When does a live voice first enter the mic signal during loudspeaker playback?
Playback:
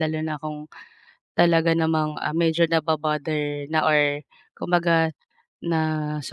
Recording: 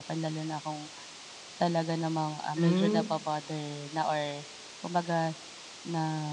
2.5 s

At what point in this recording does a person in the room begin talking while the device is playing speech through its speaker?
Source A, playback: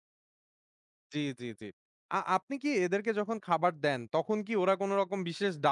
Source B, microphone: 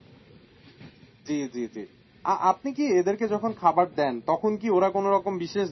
none

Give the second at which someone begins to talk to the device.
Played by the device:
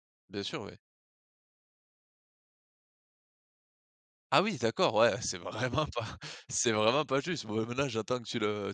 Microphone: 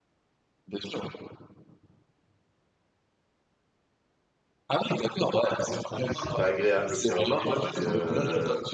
6.1 s

